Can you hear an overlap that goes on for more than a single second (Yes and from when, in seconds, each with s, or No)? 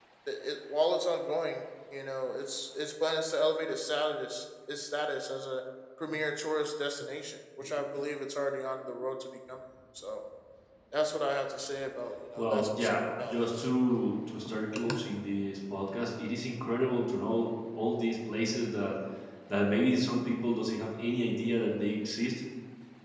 Yes, from 12.4 s